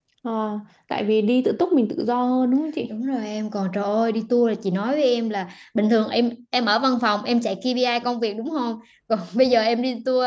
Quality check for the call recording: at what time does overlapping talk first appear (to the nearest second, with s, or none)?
none